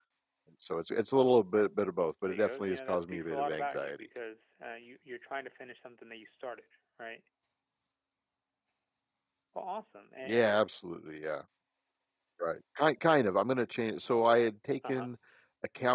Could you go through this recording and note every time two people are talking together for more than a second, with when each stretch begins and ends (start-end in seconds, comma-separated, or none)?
2.3-4.1